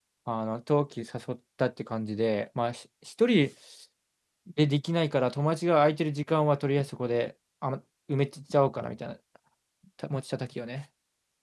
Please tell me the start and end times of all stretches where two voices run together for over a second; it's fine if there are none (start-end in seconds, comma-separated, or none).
none